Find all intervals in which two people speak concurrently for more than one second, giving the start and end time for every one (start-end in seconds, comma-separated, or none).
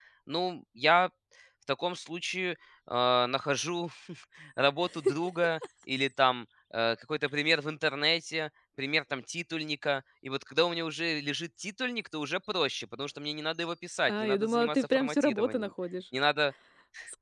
14.2-15.7